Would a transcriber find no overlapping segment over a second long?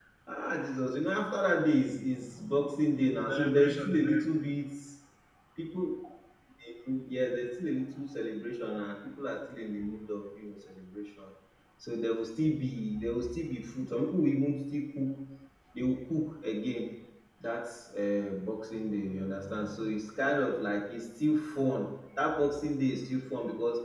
No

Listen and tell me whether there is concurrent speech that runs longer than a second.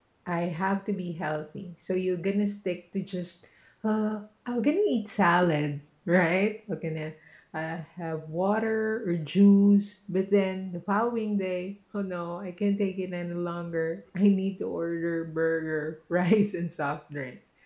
No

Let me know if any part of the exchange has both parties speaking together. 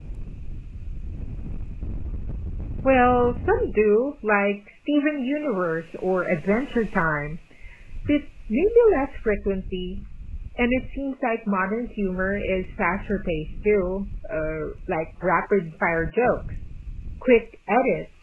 No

